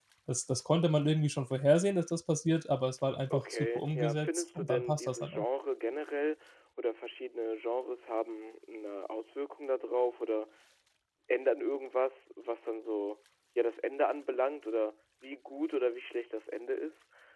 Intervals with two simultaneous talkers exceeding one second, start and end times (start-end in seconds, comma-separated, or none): 3.3-5.4